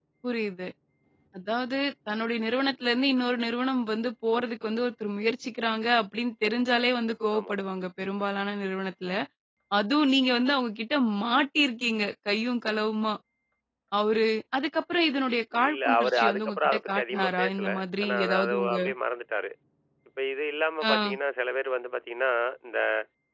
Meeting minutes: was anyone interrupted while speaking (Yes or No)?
Yes